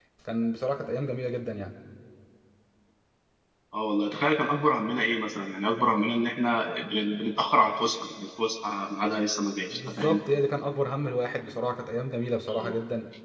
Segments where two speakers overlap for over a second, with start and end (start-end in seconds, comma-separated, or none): none